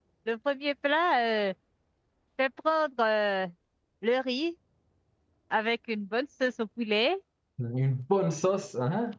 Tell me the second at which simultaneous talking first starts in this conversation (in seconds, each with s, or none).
none